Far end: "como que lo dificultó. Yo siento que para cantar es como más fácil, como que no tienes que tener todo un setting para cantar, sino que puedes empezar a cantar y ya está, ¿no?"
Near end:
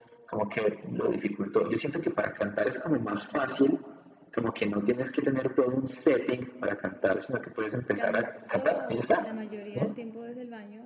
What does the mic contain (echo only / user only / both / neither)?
both